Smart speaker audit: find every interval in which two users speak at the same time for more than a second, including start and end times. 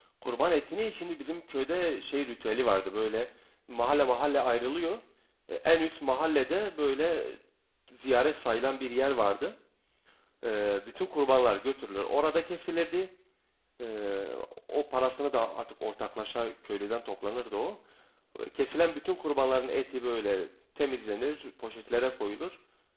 none

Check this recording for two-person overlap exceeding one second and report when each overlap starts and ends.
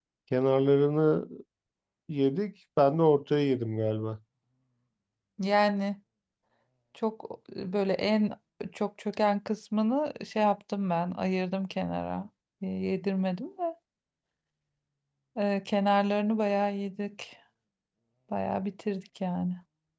none

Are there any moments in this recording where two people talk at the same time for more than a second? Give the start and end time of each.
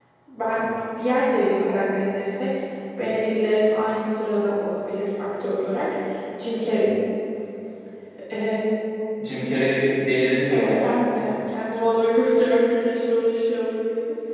none

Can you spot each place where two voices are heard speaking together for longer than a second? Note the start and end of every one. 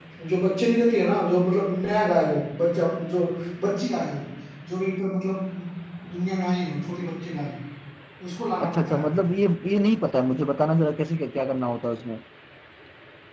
none

